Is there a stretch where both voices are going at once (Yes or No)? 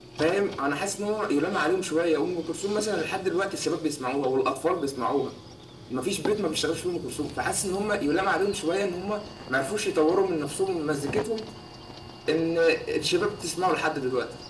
No